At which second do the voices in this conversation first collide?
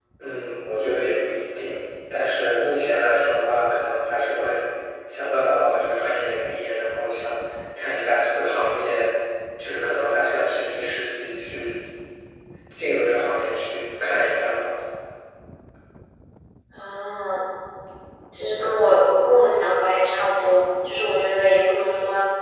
none

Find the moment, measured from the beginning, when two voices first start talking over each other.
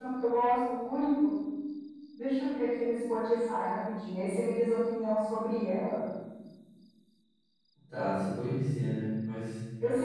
none

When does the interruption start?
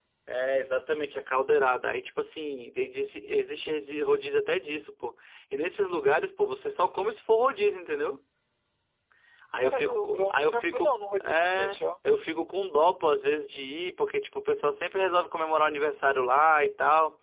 9.6 s

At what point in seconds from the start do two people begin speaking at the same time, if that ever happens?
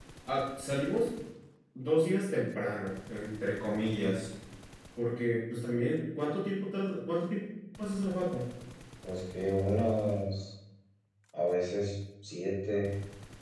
none

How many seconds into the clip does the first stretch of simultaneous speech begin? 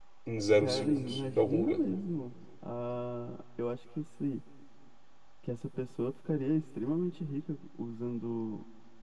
0.5 s

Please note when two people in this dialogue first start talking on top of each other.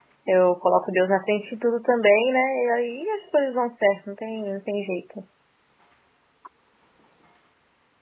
none

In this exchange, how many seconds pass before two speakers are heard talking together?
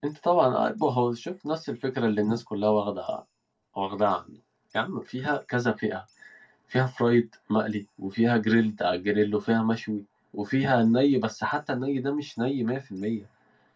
none

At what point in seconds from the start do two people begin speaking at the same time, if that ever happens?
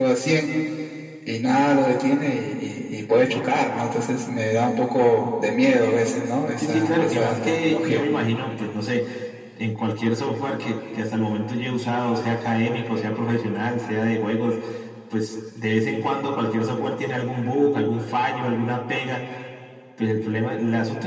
6.6 s

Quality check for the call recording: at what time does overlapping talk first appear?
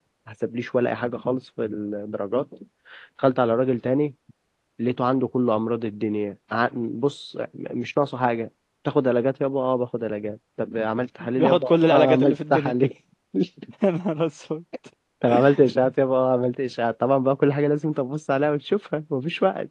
11.2 s

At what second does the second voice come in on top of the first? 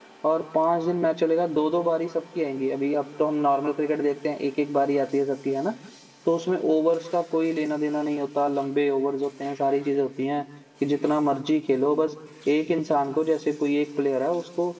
none

